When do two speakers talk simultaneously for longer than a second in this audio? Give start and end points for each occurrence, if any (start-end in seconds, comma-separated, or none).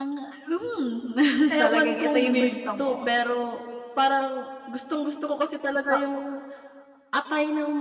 1.6-3.1